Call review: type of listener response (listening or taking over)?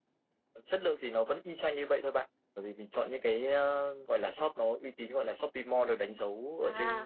taking over